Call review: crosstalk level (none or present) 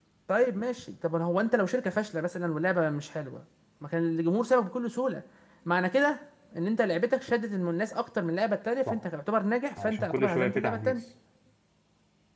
present